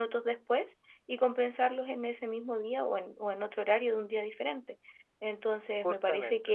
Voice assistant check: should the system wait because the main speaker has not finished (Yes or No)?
Yes